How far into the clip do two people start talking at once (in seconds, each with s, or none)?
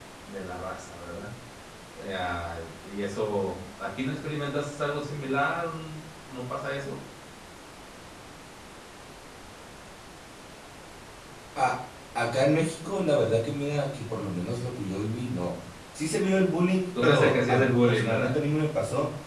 16.9 s